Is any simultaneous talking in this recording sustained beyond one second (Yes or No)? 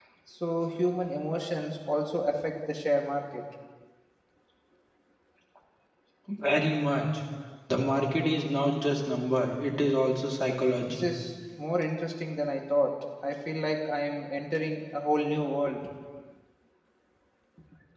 No